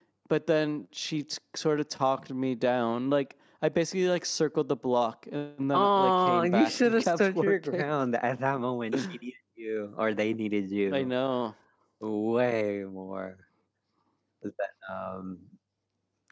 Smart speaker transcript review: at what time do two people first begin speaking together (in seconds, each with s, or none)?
5.7 s